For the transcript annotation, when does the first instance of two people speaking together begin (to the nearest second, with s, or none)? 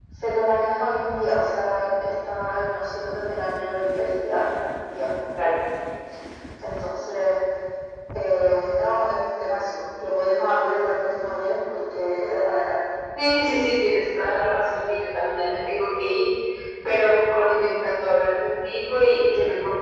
none